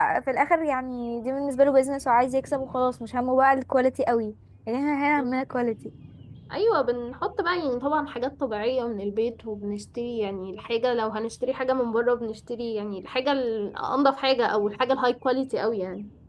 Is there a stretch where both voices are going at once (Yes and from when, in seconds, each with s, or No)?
No